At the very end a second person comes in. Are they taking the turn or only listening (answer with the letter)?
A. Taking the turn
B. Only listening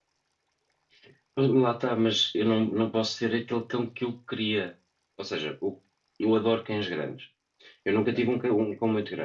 B